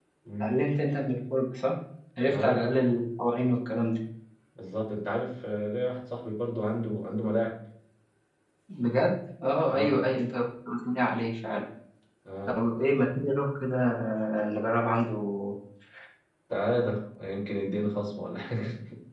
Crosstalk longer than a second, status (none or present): none